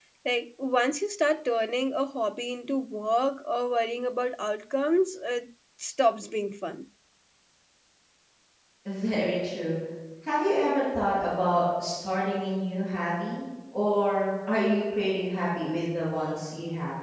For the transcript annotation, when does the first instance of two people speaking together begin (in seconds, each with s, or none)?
none